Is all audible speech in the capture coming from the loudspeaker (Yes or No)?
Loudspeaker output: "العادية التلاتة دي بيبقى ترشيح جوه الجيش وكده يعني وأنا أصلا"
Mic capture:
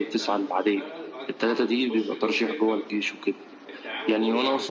No